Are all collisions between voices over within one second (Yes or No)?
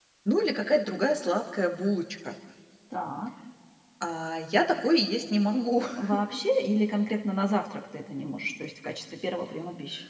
Yes